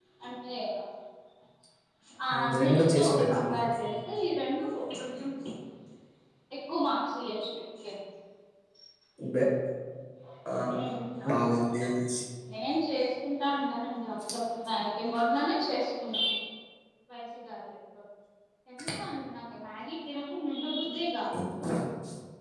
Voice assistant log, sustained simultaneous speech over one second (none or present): present